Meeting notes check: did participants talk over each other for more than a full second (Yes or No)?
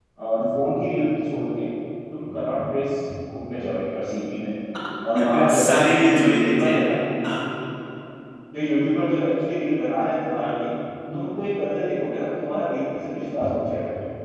Yes